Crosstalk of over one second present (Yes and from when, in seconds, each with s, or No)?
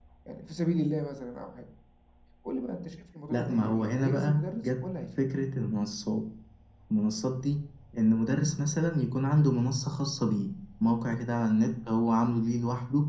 Yes, from 3.3 s